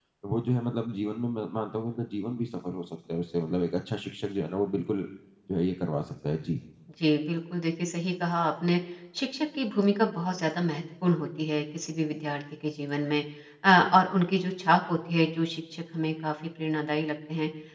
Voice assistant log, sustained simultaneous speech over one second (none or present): none